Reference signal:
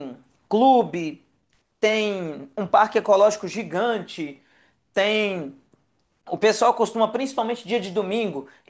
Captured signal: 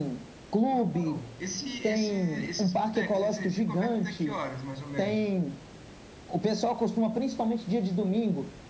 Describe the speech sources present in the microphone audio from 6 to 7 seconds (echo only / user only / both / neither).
echo only